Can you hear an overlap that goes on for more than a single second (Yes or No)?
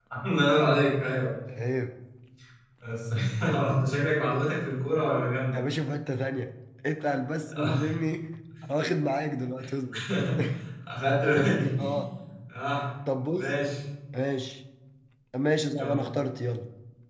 No